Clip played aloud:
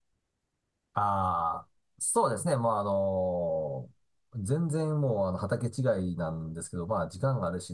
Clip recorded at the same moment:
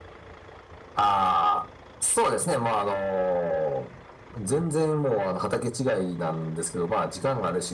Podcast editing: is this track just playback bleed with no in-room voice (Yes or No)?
Yes